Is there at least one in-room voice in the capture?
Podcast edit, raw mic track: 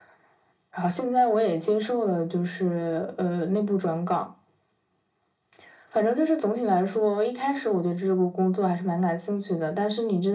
No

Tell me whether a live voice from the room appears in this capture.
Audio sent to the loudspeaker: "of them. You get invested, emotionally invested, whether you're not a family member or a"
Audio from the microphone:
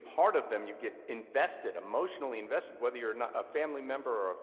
No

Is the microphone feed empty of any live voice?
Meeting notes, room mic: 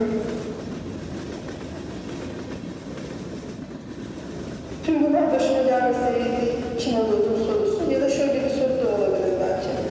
Yes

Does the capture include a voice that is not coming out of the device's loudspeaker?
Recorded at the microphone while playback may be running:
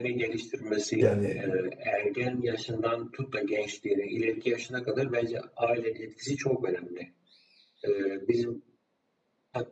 Yes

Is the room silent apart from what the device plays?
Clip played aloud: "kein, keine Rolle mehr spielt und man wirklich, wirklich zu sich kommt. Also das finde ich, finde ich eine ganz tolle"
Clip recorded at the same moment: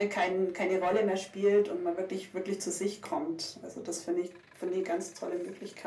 Yes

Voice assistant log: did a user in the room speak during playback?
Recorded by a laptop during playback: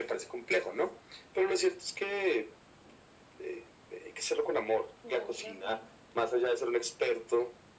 Yes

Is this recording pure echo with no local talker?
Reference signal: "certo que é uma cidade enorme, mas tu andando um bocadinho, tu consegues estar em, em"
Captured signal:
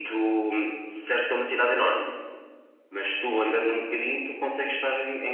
Yes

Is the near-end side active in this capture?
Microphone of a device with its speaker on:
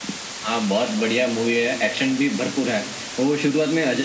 No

